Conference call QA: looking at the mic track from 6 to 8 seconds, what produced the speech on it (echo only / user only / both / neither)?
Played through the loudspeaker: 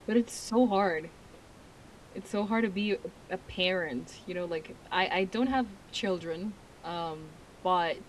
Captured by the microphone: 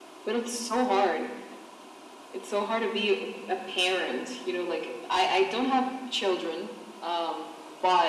echo only